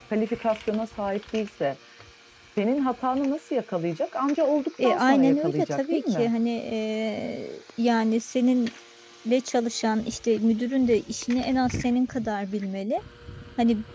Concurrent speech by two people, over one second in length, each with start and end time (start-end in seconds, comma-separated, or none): 4.8-6.3